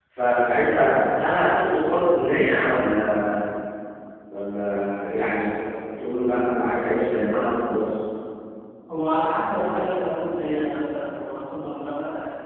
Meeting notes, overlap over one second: none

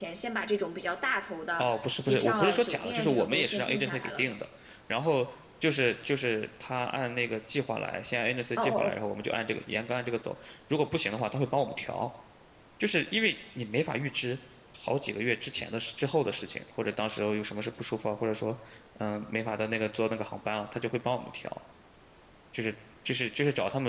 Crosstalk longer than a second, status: present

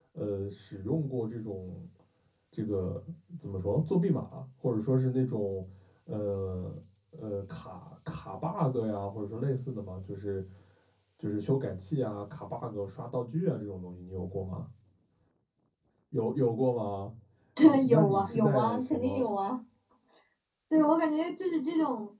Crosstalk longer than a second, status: present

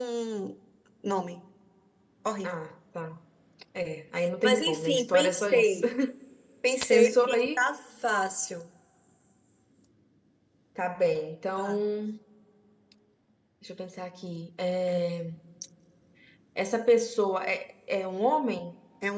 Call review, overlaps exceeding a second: present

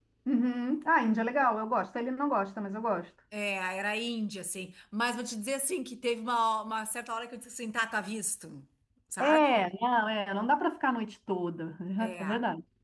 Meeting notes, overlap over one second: none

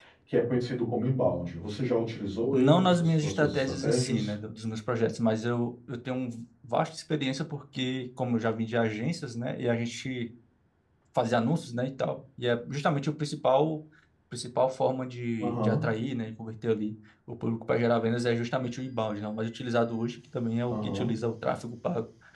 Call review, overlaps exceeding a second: present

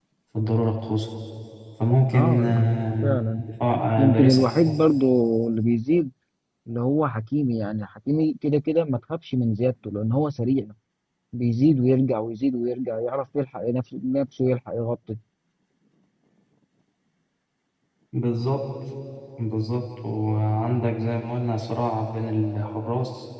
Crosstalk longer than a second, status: present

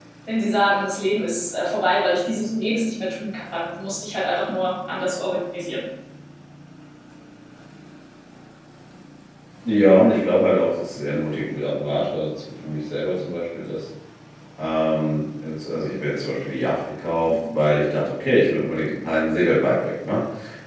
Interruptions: none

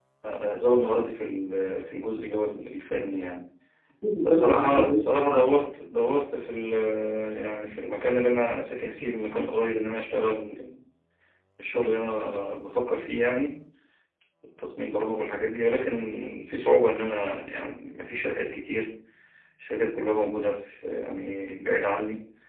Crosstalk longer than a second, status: present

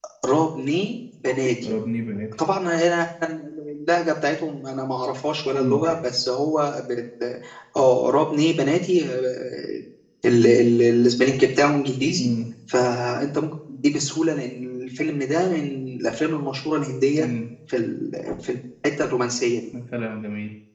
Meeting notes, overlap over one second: none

